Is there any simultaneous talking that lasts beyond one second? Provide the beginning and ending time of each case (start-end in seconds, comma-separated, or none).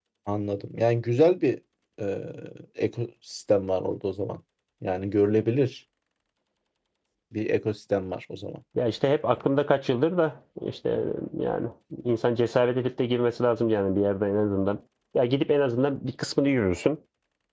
none